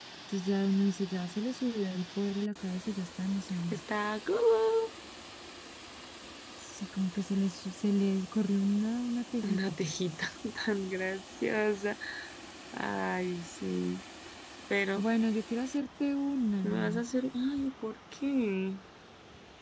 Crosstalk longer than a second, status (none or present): none